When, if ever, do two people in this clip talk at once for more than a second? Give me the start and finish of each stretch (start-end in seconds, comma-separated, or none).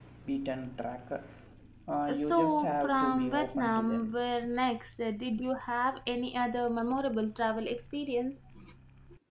2.2-4.1